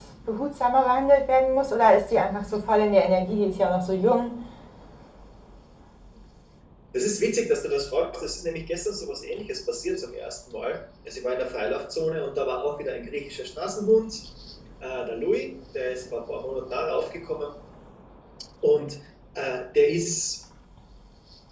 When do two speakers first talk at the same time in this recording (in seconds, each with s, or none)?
none